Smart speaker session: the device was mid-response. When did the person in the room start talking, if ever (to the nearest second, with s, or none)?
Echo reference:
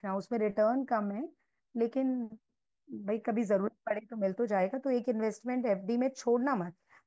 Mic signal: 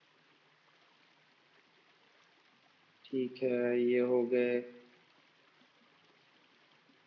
3 s